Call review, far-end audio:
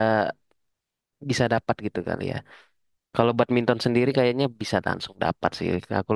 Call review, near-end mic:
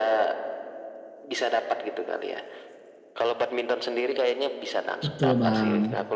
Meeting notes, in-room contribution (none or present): present